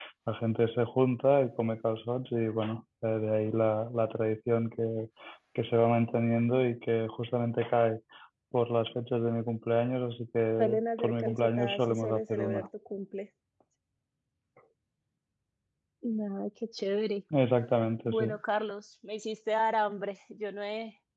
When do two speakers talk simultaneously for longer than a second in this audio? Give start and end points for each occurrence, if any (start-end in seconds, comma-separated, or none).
10.6-12.7